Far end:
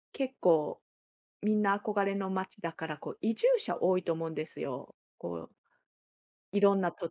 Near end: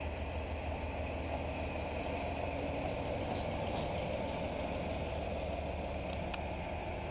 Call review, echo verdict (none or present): none